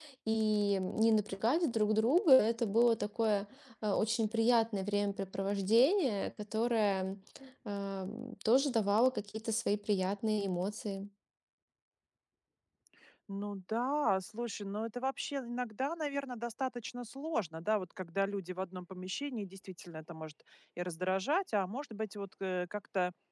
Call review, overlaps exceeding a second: none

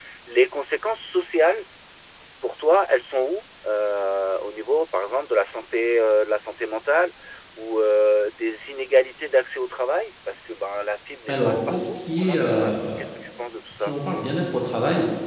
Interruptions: present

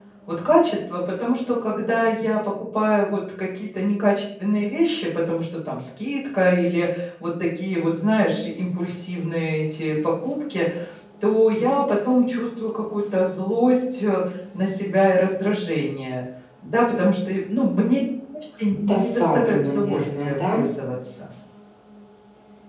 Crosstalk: present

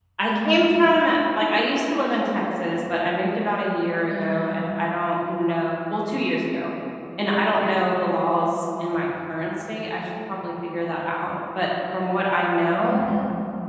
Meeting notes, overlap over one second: none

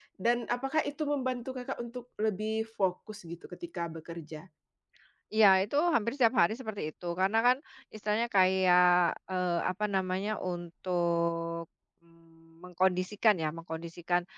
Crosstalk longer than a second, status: none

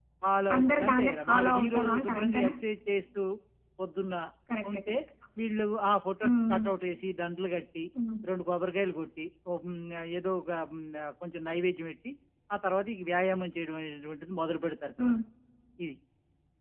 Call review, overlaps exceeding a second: present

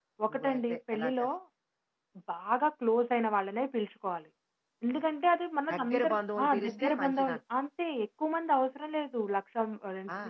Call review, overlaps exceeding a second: present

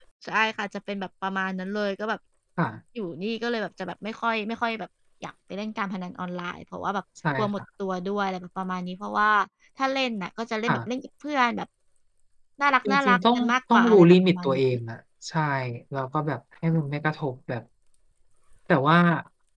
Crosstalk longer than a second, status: present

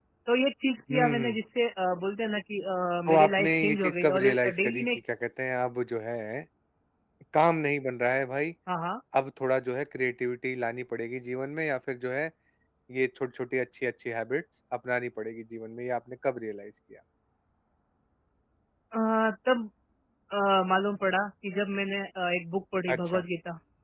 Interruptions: present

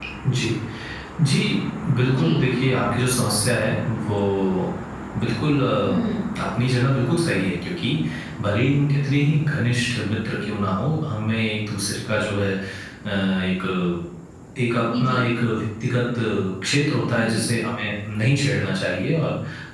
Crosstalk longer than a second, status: none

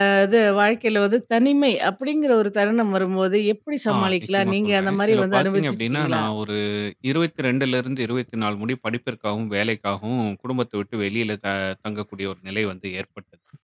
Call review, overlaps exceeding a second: present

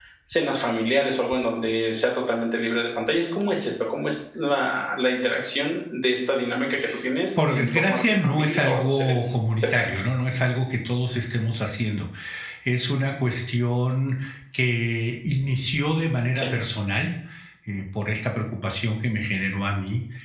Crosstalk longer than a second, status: present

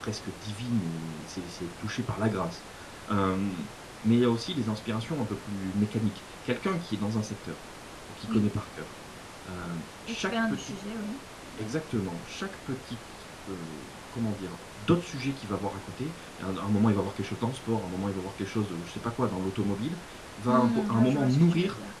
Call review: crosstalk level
present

